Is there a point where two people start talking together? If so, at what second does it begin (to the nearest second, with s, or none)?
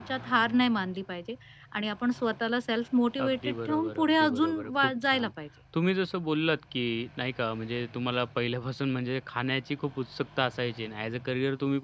3 s